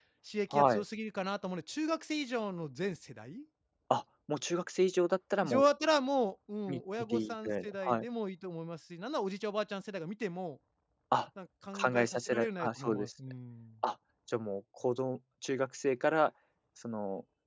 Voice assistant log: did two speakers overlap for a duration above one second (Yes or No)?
Yes